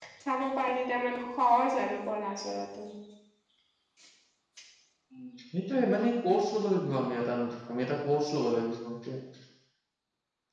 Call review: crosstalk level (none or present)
none